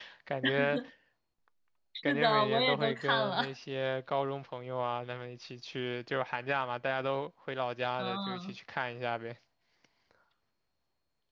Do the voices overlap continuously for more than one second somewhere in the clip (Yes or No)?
Yes